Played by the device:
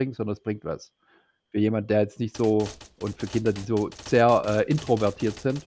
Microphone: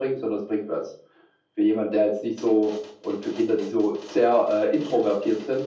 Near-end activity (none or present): none